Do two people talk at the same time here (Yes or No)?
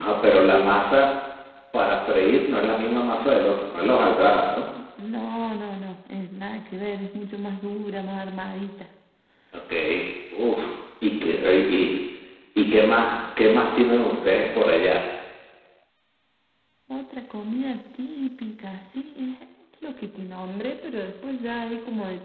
No